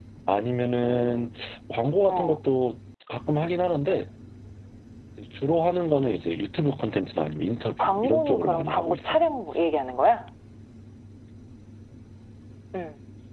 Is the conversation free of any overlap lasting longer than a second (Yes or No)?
No